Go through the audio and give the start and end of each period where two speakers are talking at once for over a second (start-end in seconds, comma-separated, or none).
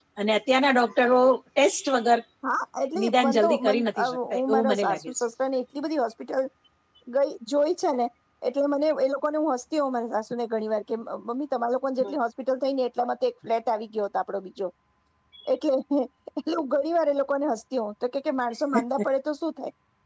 3.0-5.2